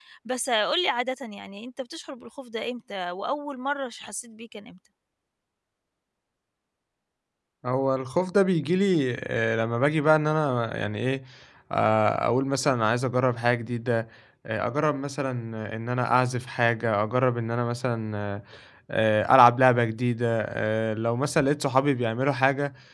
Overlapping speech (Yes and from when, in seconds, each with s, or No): No